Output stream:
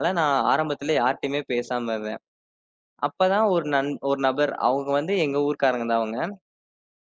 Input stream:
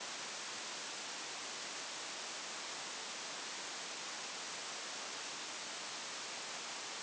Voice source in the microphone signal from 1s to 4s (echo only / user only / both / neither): neither